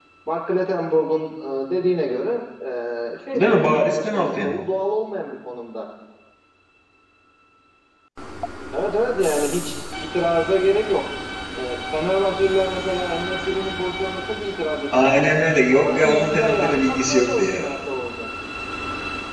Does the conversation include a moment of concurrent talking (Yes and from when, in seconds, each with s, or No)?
Yes, from 3.3 s